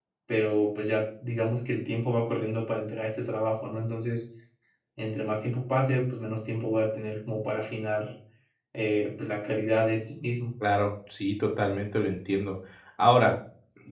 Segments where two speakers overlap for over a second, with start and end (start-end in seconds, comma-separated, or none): none